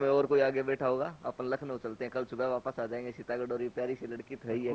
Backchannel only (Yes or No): No